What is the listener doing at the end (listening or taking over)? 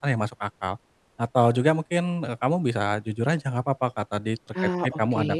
listening